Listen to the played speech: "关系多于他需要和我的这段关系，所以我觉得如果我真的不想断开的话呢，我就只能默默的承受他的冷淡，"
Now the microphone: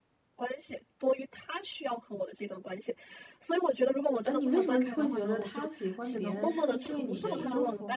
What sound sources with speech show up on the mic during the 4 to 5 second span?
both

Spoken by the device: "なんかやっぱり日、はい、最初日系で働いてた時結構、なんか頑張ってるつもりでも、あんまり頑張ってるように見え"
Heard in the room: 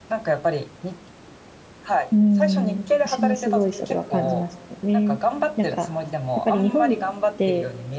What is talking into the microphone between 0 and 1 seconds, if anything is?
echo only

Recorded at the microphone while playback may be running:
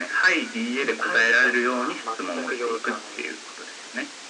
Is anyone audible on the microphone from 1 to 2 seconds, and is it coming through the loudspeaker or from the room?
echo only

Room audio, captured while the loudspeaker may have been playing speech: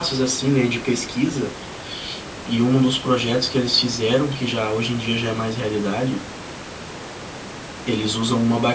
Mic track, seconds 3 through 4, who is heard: user only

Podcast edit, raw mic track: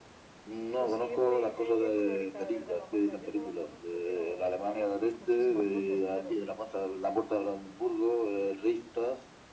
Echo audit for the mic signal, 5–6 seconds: both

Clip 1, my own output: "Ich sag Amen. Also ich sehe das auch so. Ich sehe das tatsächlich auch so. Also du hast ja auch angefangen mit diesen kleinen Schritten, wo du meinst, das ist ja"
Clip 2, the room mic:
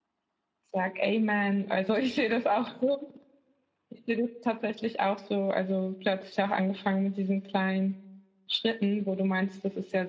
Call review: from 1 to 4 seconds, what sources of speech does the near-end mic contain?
echo only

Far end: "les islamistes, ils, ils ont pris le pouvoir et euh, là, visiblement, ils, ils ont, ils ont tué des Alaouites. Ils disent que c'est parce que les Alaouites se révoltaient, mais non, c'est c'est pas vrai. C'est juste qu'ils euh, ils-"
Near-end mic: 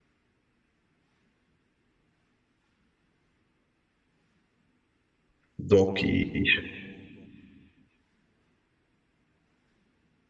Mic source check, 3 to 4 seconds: neither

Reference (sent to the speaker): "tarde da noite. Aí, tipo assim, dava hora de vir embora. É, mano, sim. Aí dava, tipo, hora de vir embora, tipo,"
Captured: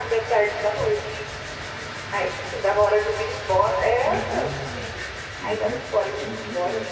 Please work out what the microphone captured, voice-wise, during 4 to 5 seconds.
both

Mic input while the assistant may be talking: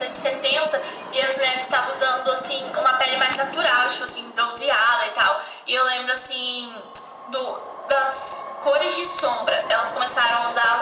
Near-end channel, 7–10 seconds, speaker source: echo only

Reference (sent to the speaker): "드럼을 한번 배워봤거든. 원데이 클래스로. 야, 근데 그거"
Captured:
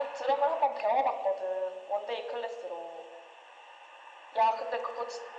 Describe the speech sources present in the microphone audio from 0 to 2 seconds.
echo only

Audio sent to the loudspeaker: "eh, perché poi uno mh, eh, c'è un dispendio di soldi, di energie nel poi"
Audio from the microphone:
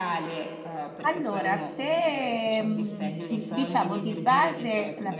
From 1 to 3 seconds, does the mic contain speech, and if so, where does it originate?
both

